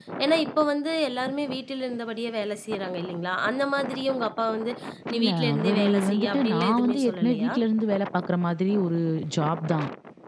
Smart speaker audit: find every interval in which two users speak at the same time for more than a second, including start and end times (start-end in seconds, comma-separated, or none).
5.2-7.5